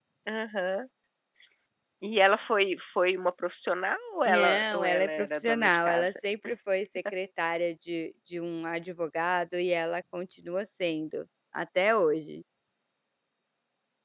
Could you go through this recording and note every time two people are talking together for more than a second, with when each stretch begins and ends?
4.2-6.1

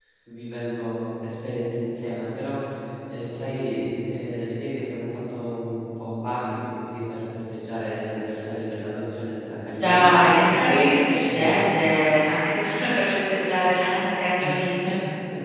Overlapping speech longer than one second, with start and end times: none

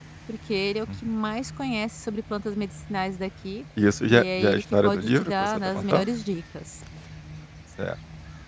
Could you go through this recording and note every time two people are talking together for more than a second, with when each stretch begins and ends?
4.1-6.1

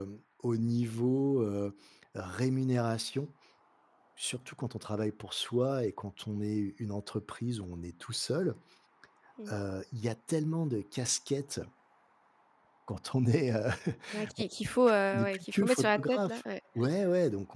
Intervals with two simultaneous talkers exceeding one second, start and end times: 15.1-16.4

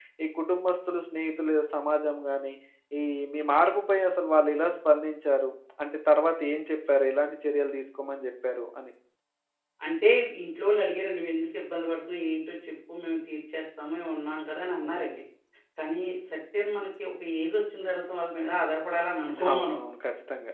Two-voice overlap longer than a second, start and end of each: none

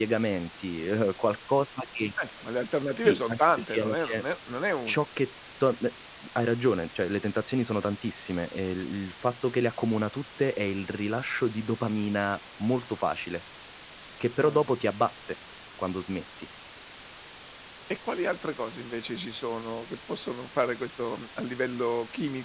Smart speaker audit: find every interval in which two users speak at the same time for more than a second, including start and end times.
3.0-4.2

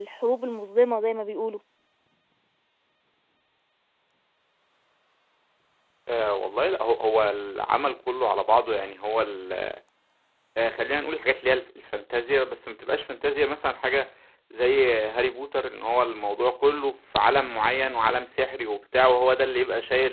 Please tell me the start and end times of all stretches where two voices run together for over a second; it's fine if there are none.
none

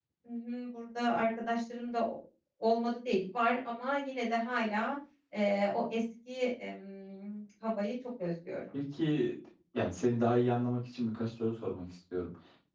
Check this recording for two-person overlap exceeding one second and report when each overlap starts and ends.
none

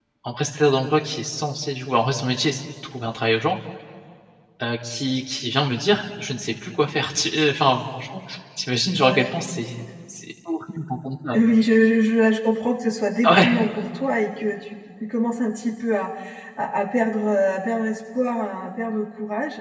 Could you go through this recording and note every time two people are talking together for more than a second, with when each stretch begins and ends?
none

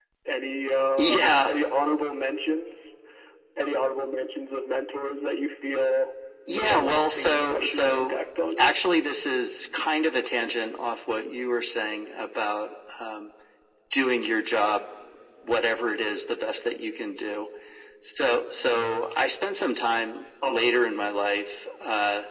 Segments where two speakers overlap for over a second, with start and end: 6.5-8.2

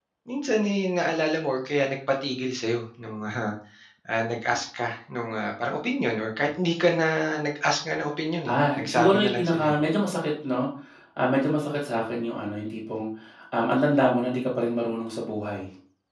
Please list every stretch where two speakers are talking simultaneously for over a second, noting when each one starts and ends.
8.5-9.8

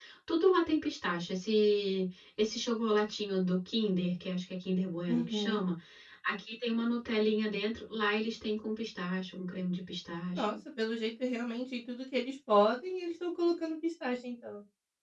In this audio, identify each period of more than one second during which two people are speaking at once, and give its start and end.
none

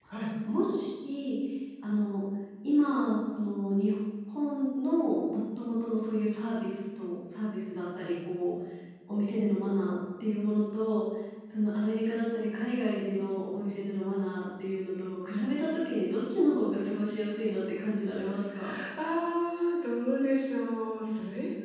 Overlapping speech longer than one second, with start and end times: none

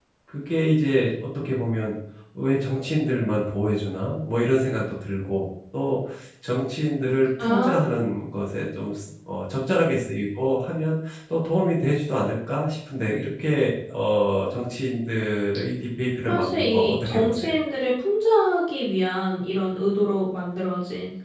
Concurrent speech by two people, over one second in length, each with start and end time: 16.3-17.5

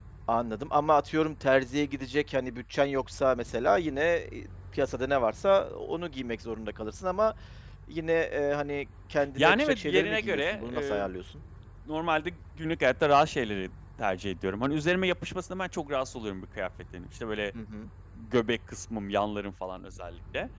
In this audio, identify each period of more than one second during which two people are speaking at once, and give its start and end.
9.4-11.1

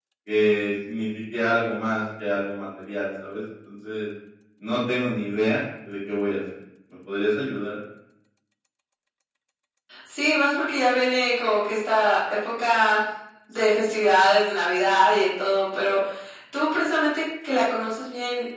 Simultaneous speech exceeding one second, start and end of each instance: none

